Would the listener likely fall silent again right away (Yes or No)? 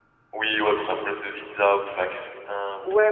No